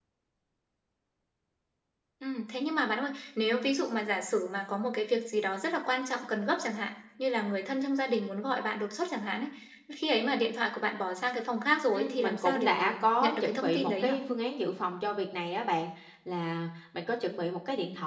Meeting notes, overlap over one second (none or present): present